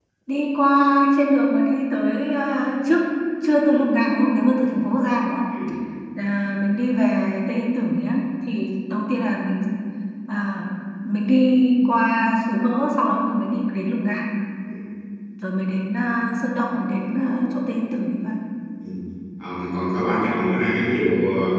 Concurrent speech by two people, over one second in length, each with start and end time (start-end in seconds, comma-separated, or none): none